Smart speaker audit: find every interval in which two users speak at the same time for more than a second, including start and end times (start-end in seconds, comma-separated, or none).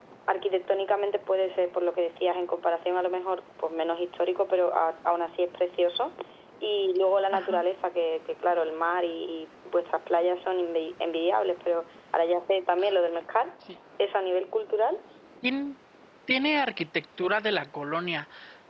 none